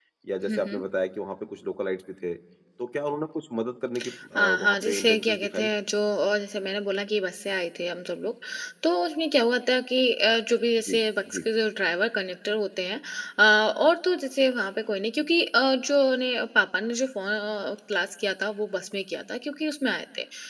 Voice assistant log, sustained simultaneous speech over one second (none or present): present